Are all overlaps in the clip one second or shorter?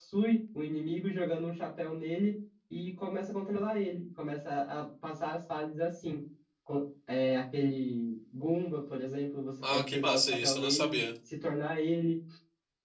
No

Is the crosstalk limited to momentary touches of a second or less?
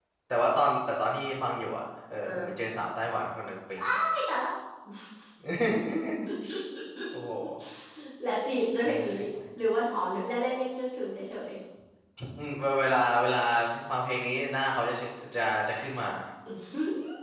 Yes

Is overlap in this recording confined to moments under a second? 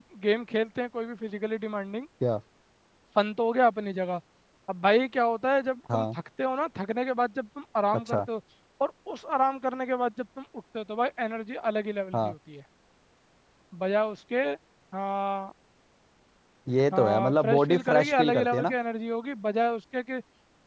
No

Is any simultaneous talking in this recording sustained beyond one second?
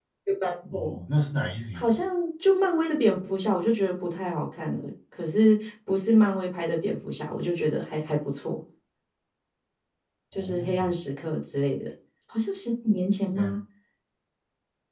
No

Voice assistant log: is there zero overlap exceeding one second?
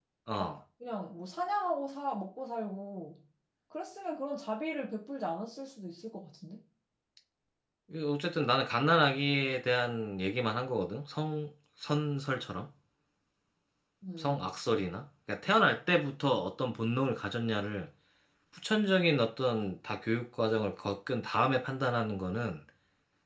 Yes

